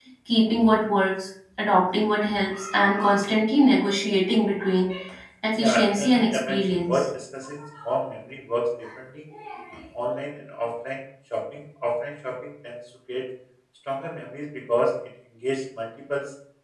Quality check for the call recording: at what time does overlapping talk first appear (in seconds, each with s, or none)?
5.6 s